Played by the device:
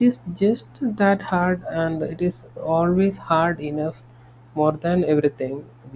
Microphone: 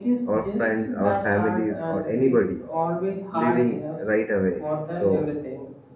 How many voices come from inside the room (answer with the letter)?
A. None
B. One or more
B